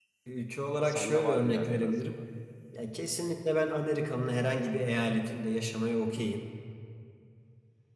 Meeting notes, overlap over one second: present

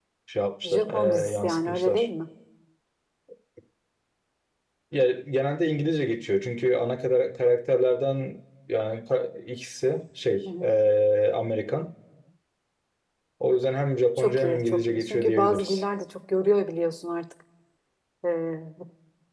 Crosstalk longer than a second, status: present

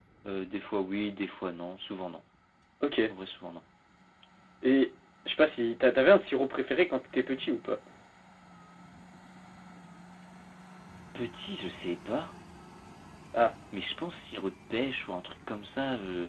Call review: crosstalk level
none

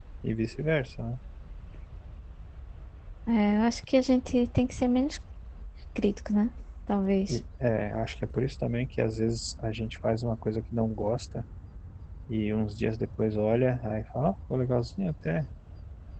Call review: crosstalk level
none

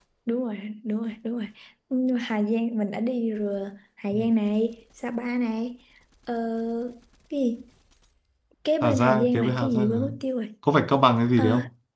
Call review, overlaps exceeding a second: present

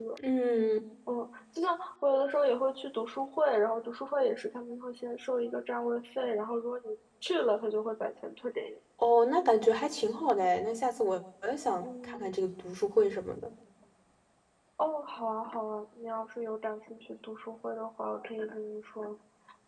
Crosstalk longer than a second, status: none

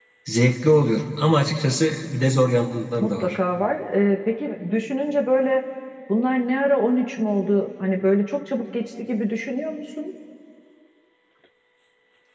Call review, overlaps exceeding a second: none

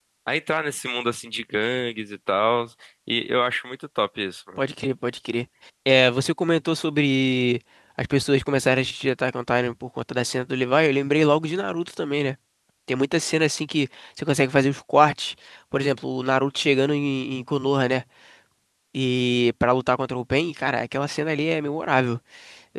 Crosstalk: none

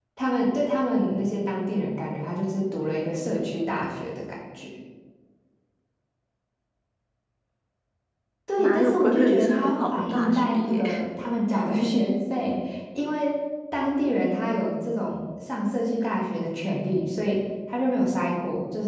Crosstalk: present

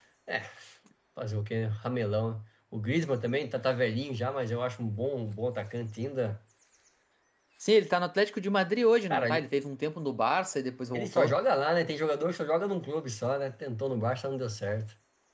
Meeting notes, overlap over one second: none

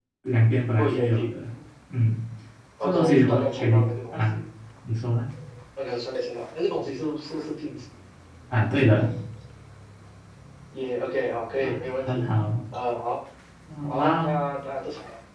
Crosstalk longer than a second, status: present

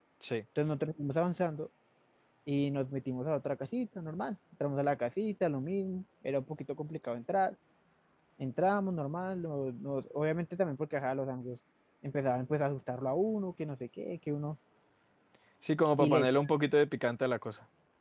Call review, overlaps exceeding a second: none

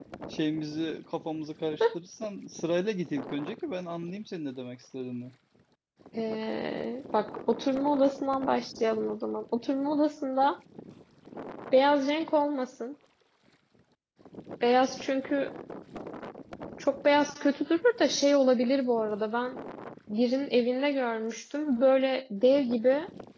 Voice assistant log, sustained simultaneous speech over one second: none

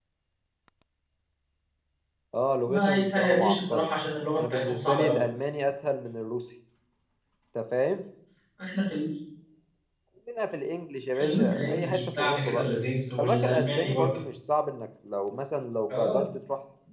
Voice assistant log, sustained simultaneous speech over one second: present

